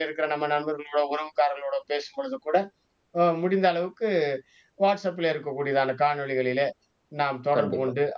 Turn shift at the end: No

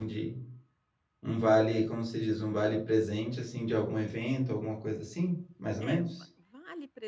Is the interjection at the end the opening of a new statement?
Yes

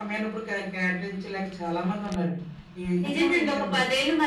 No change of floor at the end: No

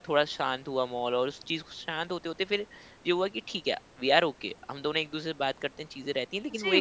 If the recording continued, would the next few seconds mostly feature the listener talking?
Yes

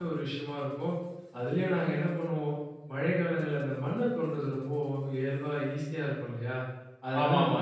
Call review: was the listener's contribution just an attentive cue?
Yes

